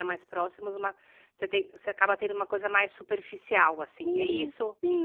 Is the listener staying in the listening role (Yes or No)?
No